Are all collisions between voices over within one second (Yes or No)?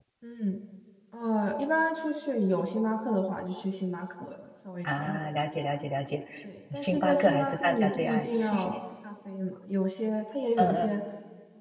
No